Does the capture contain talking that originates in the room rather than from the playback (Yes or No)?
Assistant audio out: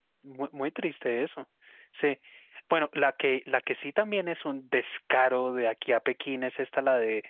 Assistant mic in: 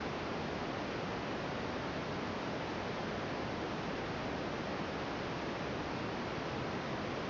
No